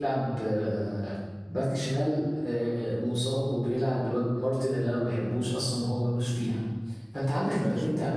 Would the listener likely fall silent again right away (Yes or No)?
Yes